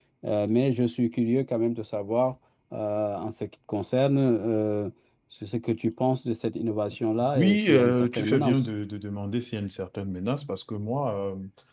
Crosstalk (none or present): present